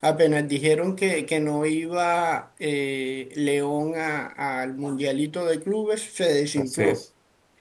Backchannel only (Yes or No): No